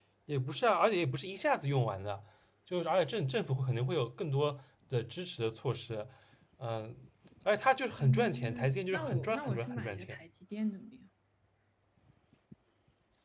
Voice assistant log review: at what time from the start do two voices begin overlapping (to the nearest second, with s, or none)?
8 s